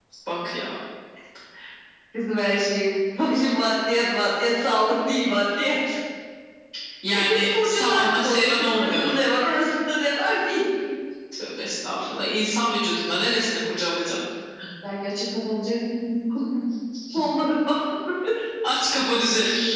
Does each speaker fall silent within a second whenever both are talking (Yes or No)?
No